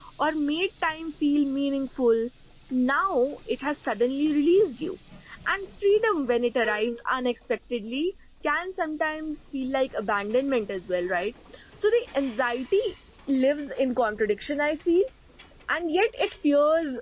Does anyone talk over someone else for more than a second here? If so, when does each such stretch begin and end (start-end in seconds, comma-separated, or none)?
none